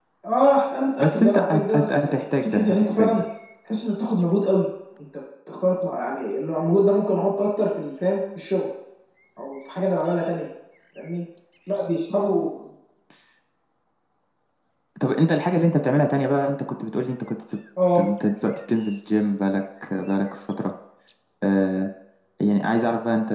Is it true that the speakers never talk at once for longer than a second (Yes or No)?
No